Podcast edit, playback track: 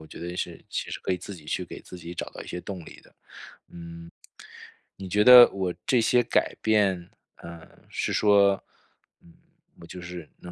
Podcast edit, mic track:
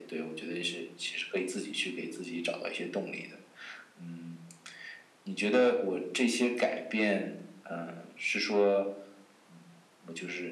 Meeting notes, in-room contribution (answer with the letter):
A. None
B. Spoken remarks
A